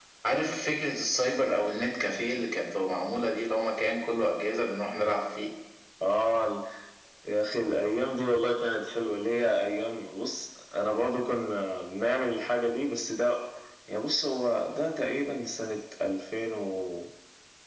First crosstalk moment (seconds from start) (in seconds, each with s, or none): none